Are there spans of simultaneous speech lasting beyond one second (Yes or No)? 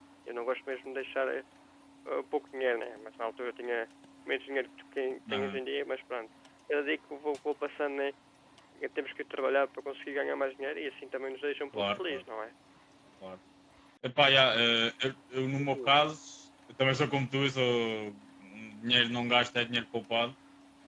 No